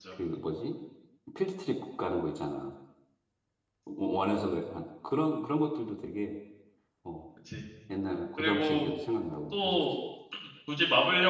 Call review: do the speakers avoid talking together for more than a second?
Yes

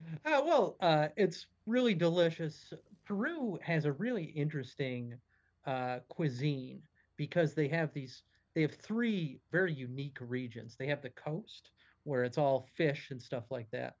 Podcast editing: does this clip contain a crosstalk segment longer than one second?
No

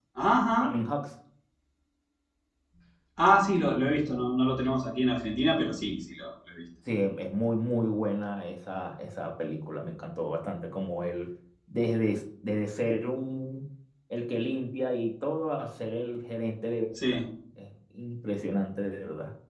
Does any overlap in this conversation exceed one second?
No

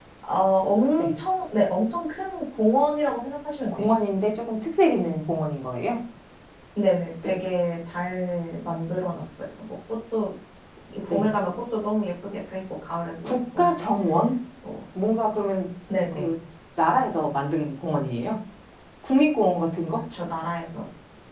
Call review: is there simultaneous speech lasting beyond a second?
No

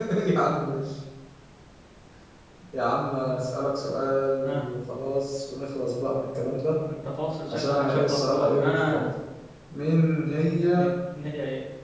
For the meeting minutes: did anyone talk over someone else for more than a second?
Yes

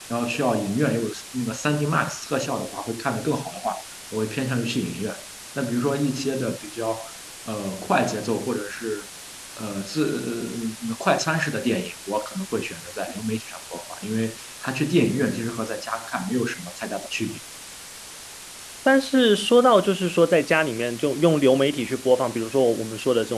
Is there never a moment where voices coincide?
Yes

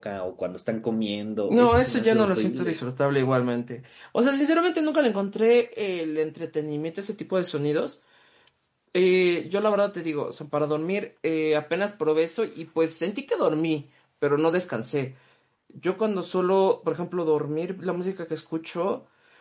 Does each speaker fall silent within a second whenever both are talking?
No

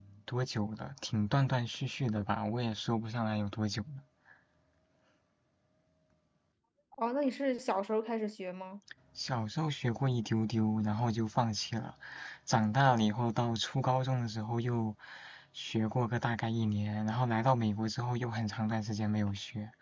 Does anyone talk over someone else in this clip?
No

